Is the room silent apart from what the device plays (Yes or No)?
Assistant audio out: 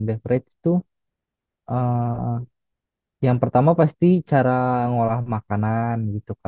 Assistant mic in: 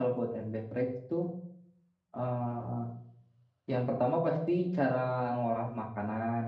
Yes